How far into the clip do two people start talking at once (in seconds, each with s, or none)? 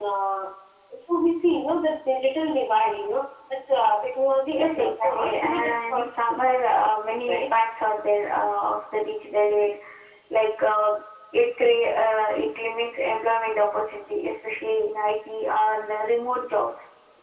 4.6 s